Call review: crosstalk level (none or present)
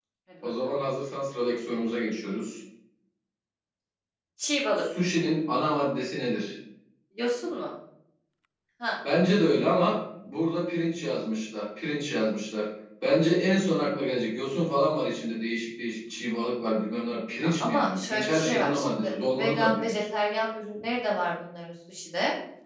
present